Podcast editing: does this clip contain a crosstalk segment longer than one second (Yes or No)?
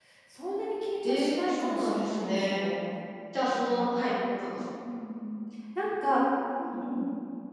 Yes